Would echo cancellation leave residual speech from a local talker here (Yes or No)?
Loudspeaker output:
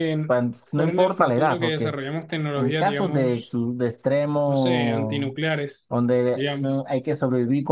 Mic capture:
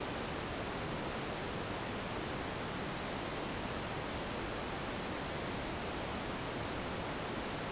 No